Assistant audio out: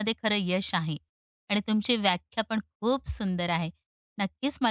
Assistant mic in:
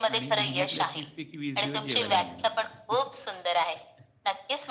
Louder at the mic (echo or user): echo